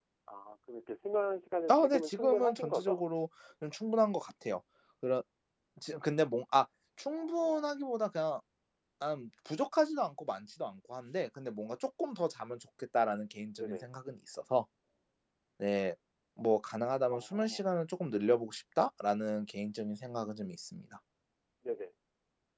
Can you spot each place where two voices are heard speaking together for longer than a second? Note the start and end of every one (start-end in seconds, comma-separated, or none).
1.7-3.0